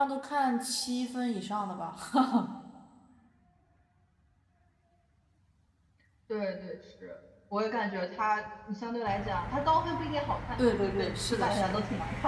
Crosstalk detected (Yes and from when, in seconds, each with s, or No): Yes, from 10.6 s